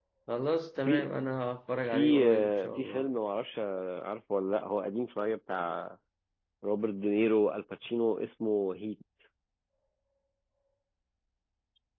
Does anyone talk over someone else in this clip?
Yes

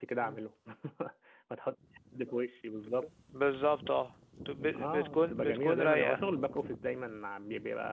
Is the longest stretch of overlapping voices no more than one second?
No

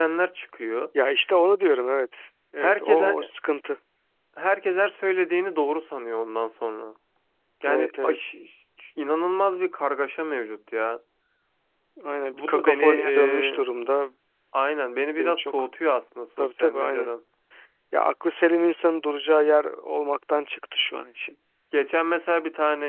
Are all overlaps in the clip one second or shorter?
No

